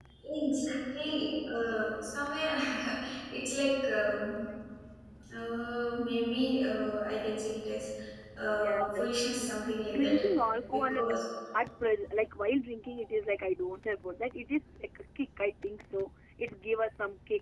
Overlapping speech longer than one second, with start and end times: 8.6-10.2

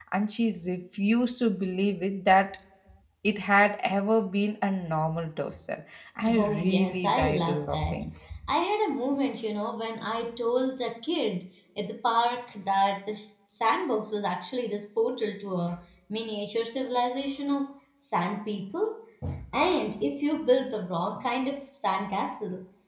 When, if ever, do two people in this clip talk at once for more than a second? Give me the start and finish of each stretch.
6.3-8.0

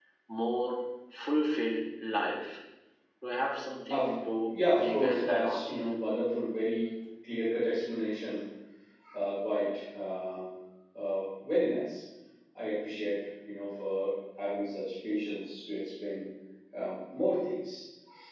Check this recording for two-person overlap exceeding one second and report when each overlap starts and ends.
4.5-5.8

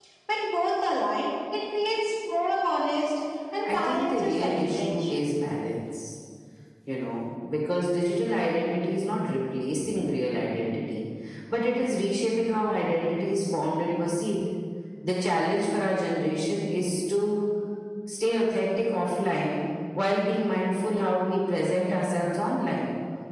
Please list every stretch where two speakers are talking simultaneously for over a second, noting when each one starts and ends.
3.6-5.1

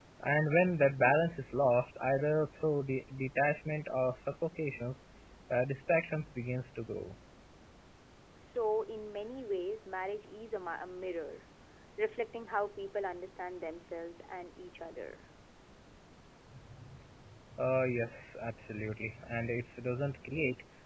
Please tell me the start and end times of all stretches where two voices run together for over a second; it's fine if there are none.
none

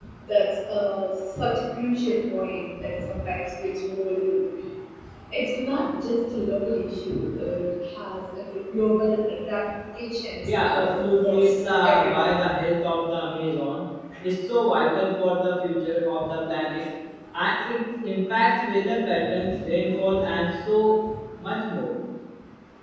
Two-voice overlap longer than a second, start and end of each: 10.4-12.4

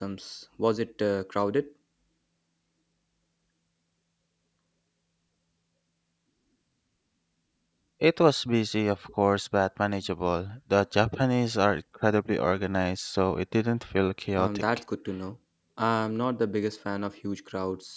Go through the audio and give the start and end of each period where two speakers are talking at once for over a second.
none

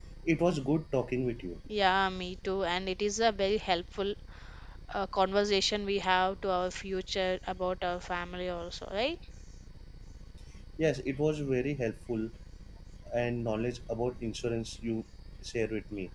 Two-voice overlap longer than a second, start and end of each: none

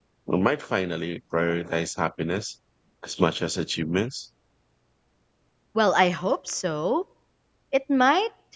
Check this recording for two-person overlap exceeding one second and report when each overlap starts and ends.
none

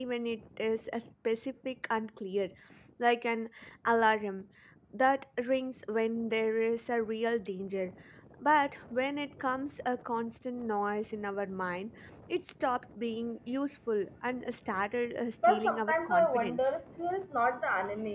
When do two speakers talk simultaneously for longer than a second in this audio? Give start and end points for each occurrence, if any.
15.4-16.7

